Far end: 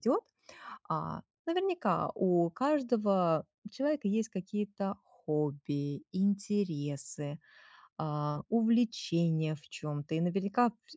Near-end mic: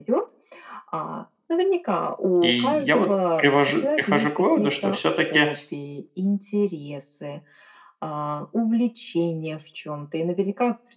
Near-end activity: present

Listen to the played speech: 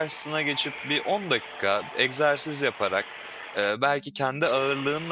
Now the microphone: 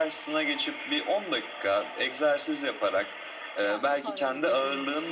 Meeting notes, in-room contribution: present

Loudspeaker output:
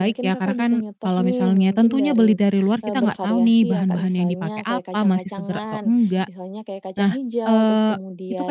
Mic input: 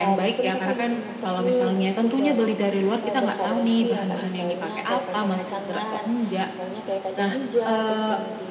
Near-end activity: none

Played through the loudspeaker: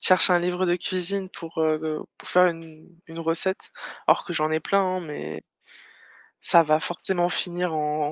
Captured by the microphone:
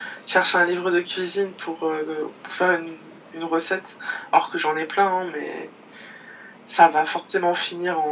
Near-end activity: none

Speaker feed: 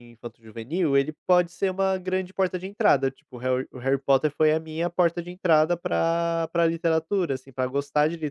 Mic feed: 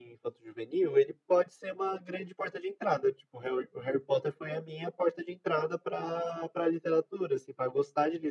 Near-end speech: none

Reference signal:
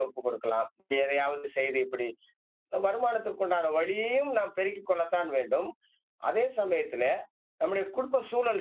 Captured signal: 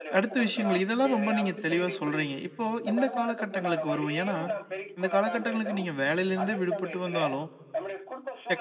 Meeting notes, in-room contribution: present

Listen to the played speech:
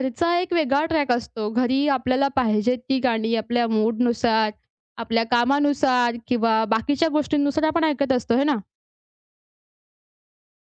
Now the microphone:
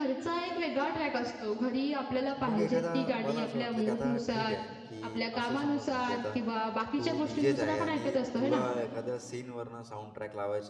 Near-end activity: present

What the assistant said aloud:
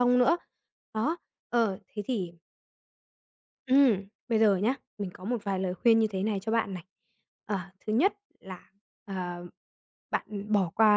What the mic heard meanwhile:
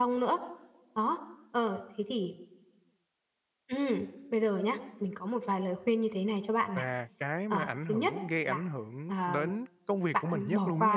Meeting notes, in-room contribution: present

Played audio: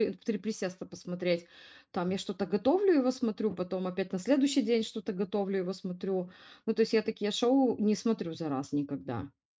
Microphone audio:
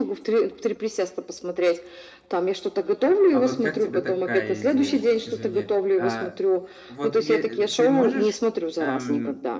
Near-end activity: present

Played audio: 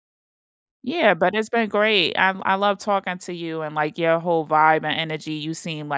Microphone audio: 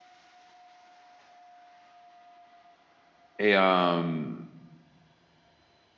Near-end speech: present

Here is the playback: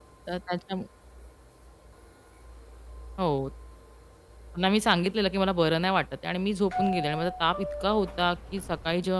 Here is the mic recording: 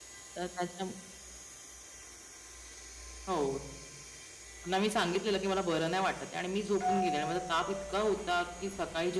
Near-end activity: none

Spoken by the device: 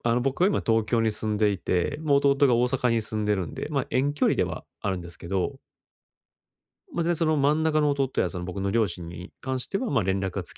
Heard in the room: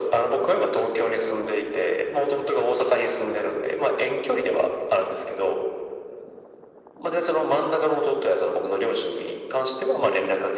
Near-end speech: none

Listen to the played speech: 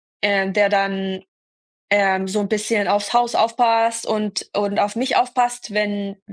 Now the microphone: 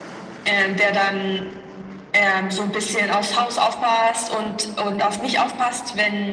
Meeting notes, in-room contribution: none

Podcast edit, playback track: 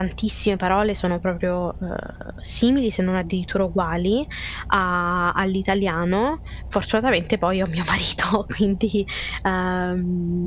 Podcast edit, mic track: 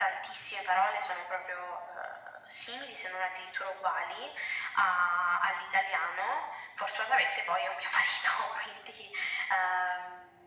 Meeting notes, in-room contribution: none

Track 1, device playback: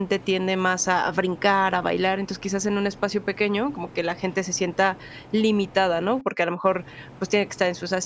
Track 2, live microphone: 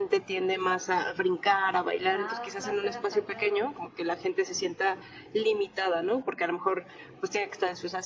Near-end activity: present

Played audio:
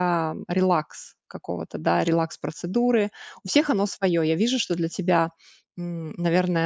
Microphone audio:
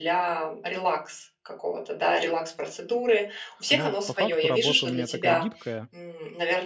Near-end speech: present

